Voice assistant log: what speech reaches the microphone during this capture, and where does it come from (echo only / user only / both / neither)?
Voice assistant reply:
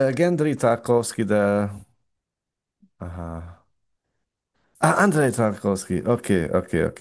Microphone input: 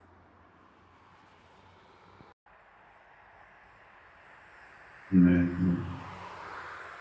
user only